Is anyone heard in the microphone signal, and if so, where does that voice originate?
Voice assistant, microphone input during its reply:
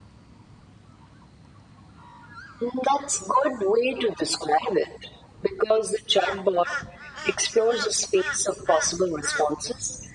echo only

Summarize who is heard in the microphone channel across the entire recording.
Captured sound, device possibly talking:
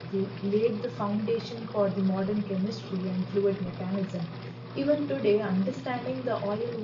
user only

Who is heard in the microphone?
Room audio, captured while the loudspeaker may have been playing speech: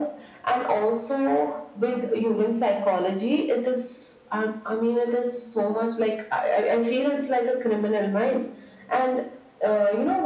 echo only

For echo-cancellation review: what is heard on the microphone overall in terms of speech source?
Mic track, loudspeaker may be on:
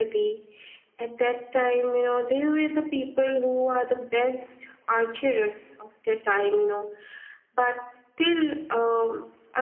echo only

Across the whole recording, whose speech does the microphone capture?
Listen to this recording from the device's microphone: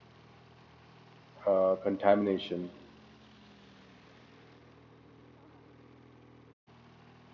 user only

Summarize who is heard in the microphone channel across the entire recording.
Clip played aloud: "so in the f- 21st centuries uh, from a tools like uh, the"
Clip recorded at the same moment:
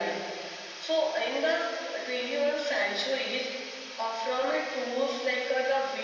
echo only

